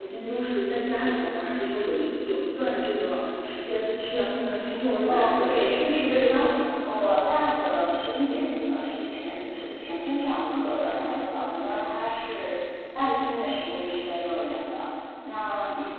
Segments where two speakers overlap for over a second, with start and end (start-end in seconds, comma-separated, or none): 5.1-6.3